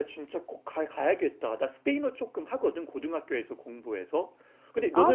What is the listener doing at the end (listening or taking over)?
listening